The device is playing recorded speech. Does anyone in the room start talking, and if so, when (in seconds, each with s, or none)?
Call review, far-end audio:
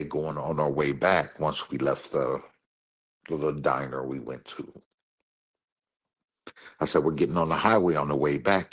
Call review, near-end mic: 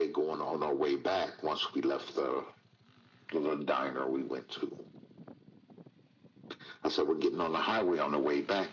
none